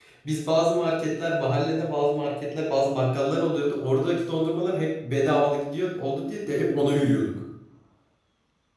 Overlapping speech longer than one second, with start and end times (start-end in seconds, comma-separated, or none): none